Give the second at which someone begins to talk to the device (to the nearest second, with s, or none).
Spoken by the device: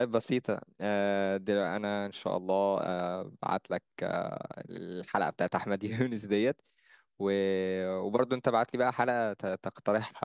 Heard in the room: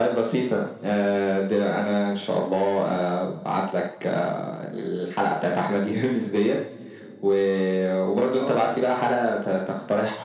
8 s